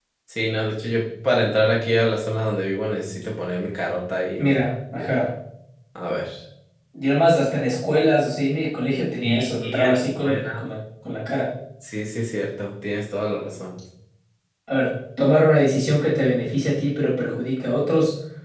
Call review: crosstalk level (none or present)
present